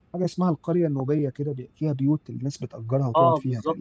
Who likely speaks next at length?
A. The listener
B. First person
A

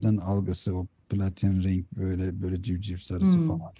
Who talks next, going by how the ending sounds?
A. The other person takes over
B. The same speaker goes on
A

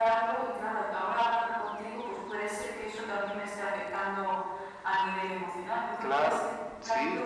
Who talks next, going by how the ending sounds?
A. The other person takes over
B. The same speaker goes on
A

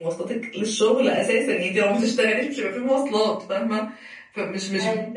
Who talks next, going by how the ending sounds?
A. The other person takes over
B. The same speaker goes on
B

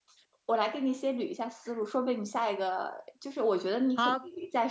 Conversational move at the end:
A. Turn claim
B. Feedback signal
B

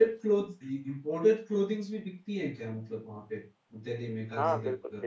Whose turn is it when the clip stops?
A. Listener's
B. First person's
A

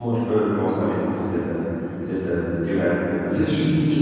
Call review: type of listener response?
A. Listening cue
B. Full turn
B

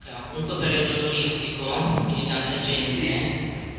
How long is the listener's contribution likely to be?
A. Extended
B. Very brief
A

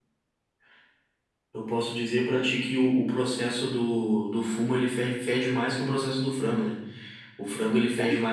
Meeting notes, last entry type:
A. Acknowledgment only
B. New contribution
A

